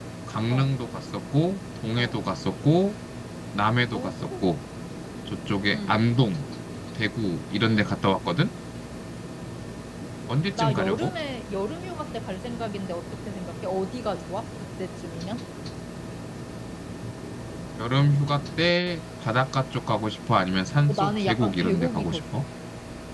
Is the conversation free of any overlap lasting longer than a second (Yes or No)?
No